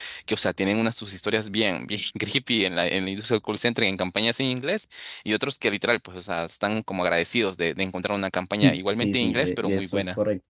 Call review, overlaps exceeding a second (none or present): present